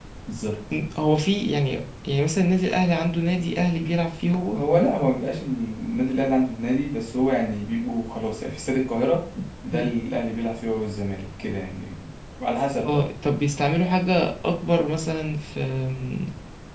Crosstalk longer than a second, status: none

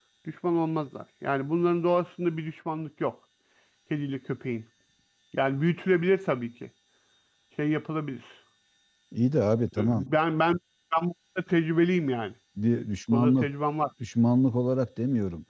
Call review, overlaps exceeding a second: none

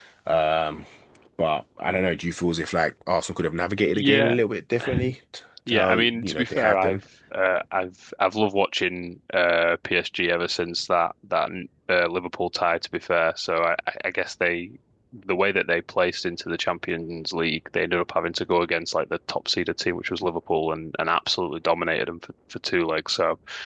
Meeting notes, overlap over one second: present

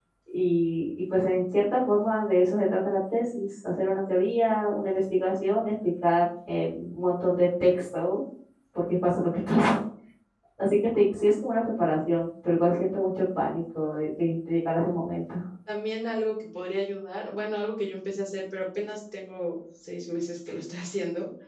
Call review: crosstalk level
none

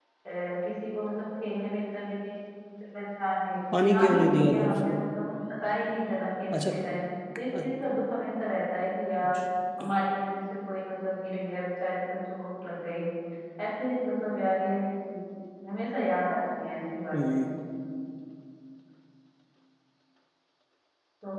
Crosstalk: present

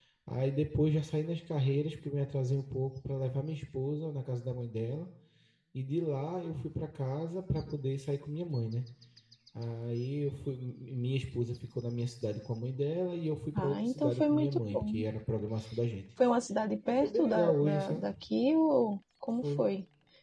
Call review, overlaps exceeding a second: present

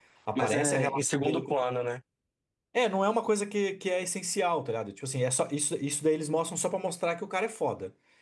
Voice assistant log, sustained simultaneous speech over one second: present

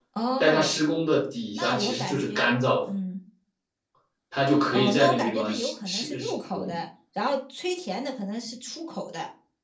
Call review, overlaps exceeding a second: present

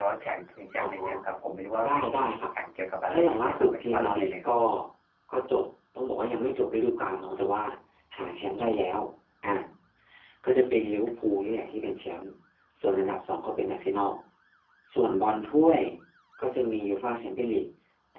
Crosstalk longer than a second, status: present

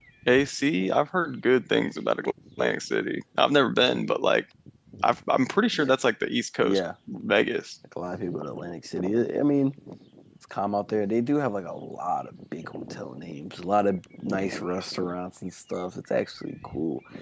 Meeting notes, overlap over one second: none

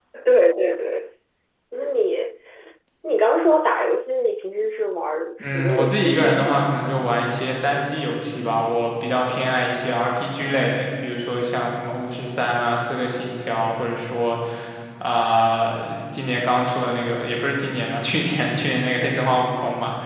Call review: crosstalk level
present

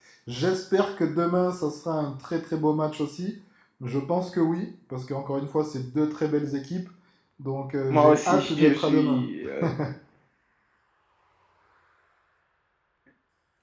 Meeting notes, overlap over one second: present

